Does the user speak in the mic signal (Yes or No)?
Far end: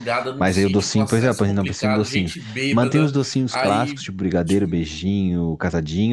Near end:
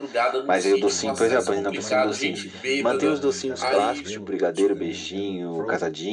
Yes